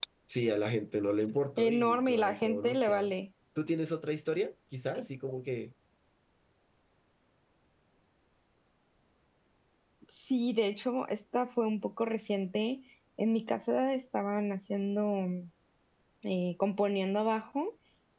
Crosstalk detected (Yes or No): Yes